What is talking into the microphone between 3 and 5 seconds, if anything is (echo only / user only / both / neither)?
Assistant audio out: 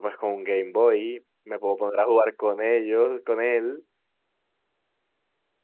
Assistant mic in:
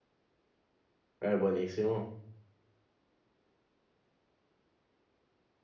neither